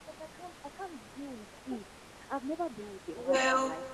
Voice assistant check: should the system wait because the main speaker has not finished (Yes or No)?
Yes